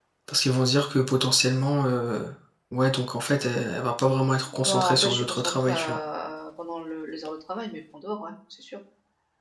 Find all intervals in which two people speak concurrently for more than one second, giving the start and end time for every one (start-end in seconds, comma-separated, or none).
4.5-6.0